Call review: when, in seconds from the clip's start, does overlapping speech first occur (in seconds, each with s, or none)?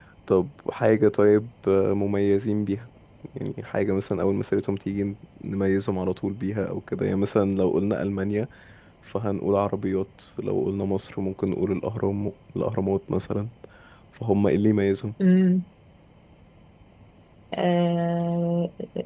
none